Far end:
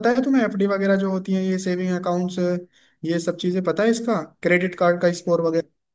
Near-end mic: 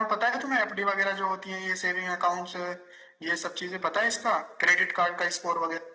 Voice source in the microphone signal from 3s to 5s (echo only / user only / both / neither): echo only